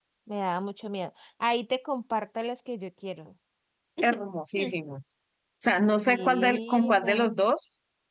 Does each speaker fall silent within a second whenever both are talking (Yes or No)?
No